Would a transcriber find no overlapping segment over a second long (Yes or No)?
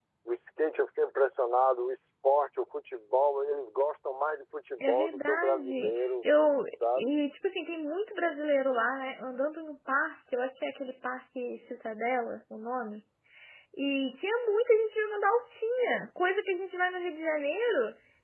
No